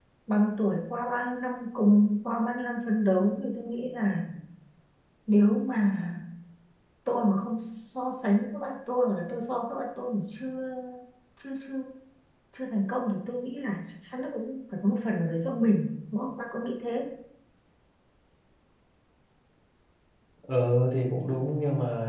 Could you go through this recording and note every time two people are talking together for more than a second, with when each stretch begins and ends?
none

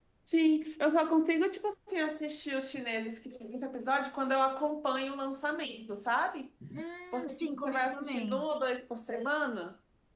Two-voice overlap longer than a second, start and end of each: 7.1-8.5

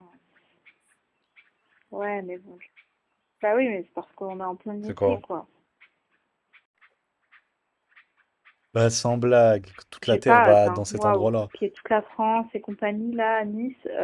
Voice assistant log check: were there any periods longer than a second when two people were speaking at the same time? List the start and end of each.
10.0-11.3

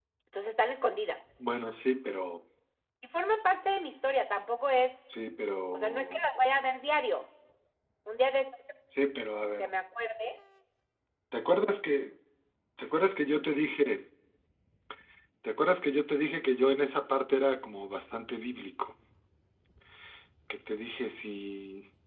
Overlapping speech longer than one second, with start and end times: none

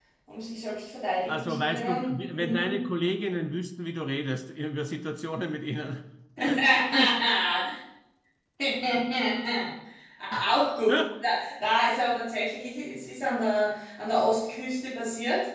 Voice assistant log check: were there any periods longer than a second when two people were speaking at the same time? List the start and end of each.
1.3-2.8

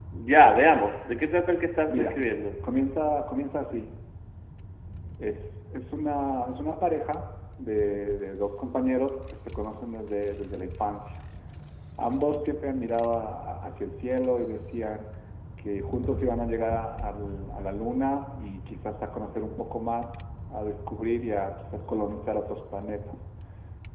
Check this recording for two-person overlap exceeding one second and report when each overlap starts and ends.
none

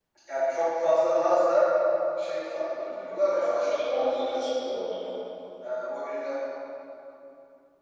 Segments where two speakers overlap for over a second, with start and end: 2.9-4.4

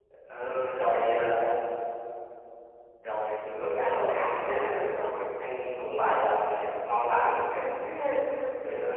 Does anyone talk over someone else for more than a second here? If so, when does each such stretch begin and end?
3.6-5.2

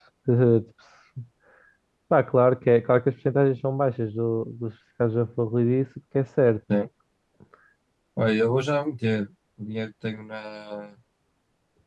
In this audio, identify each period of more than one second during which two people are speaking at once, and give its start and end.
none

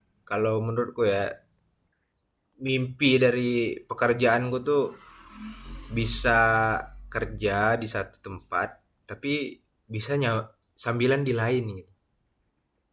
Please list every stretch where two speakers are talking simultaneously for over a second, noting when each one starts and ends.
none

